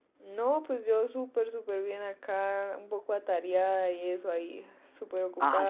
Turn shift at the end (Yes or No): Yes